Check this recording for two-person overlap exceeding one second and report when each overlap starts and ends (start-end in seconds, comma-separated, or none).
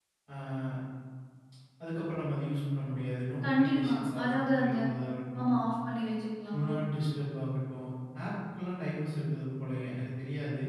3.4-4.8